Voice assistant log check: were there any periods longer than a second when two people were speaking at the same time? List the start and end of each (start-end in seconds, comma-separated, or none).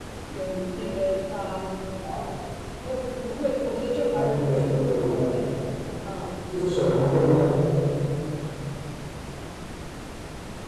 4.1-5.4